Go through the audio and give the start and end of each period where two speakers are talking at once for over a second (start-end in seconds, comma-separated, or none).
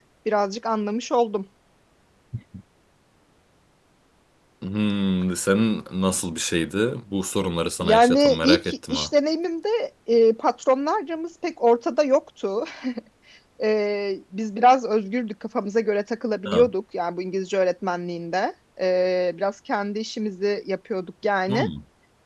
7.8-9.1